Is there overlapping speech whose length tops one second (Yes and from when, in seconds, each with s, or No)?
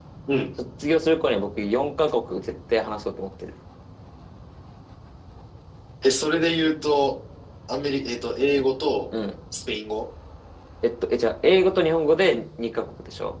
No